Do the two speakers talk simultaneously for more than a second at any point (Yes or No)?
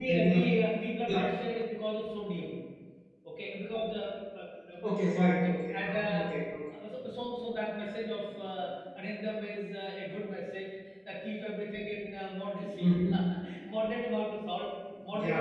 Yes